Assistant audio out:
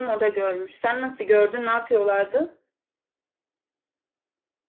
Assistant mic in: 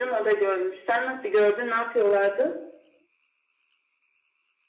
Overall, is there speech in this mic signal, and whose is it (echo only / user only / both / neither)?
echo only